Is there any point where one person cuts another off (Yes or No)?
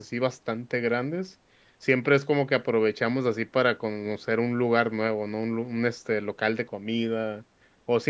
No